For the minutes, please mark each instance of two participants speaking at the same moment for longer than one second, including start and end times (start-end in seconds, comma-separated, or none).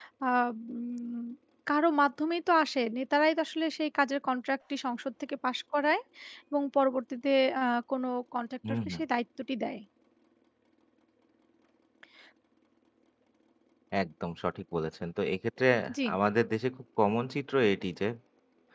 none